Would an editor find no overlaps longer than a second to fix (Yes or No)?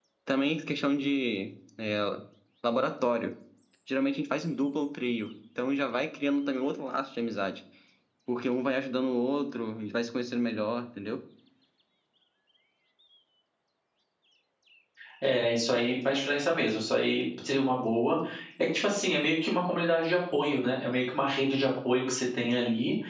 Yes